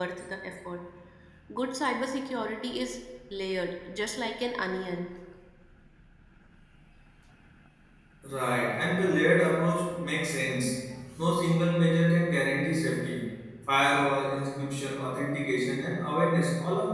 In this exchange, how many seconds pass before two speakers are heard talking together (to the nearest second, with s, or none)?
none